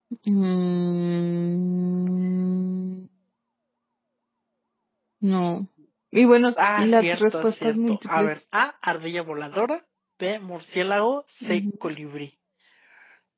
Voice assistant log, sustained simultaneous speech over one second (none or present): present